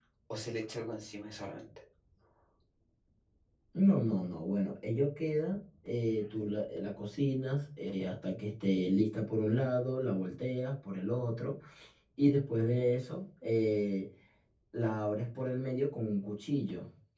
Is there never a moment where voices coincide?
Yes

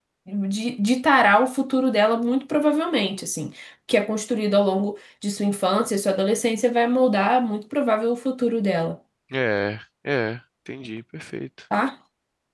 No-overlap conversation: Yes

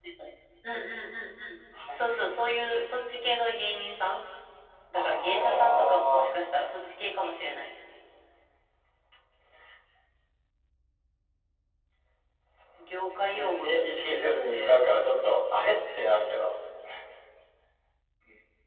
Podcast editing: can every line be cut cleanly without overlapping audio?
No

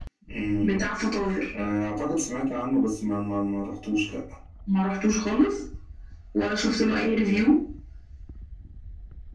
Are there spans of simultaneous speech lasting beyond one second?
No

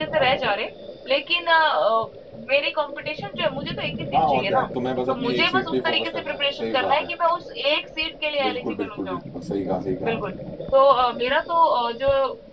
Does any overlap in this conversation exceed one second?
Yes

